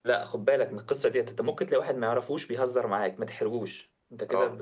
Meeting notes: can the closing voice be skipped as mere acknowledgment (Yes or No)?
No